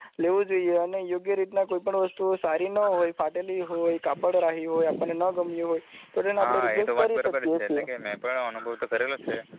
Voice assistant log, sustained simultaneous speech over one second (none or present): present